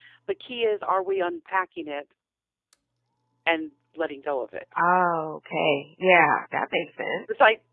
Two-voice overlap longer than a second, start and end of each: none

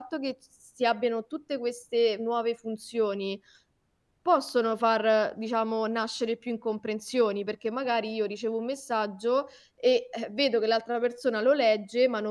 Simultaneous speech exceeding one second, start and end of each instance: none

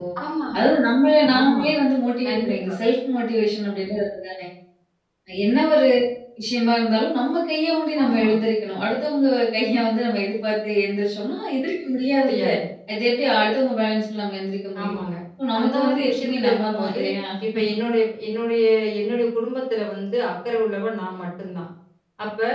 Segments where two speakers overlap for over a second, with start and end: 15.6-17.0

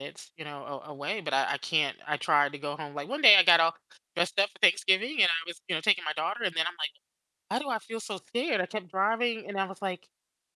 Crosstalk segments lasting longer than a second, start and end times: none

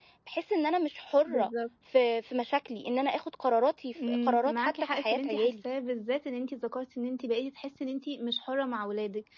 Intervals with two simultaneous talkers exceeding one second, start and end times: 4.1-5.5

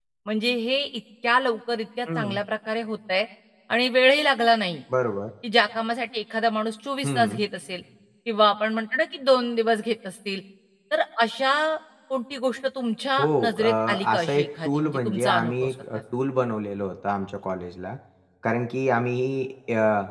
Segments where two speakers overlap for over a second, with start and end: 13.2-16.0

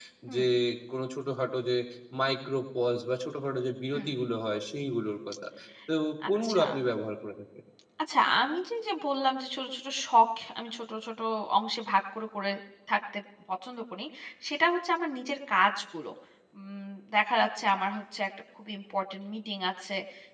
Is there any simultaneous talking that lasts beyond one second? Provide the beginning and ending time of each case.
none

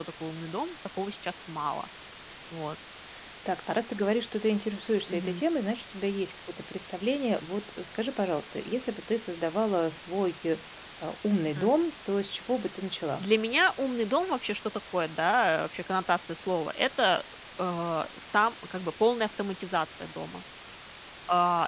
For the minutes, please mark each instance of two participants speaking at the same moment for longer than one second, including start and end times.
none

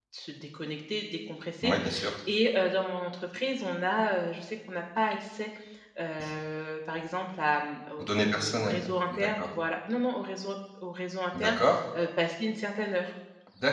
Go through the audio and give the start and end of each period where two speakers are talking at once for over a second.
8.0-9.5

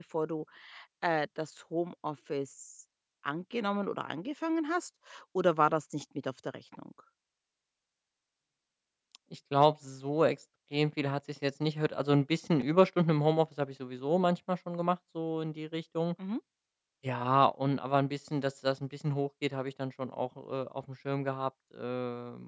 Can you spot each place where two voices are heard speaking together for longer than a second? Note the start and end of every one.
none

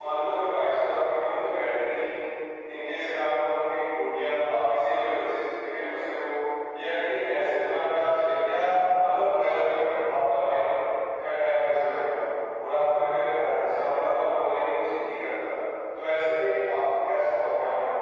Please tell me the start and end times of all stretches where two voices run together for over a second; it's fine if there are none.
none

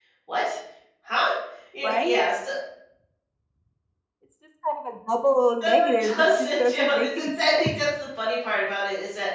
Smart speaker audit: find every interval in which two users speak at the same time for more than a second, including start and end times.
5.6-7.7

